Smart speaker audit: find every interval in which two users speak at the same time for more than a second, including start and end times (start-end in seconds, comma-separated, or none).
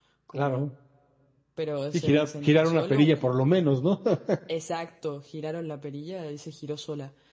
1.9-3.4